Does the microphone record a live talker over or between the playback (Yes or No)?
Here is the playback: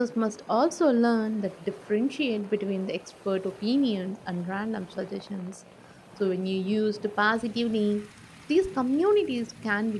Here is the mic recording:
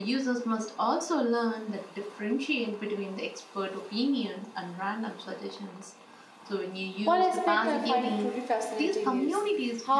Yes